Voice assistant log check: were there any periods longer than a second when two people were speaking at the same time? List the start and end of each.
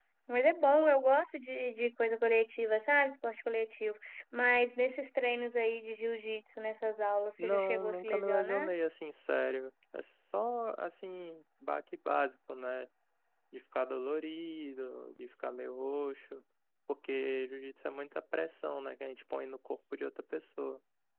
7.4-8.7

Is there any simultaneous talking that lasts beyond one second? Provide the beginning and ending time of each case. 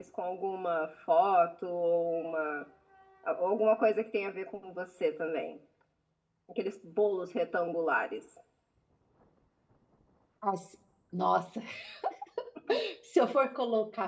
none

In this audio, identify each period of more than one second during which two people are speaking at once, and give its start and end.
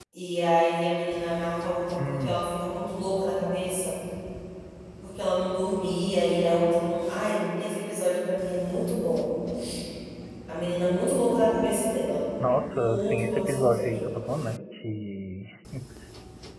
12.7-14.1

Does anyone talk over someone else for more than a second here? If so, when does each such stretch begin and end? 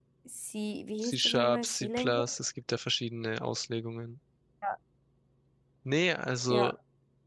1.0-2.3

